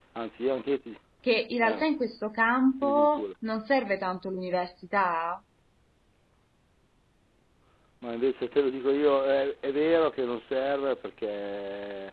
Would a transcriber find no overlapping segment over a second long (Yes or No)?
Yes